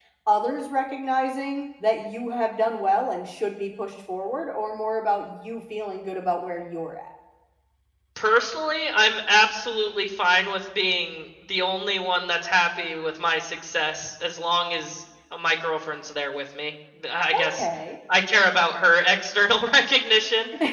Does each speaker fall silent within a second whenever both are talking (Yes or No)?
Yes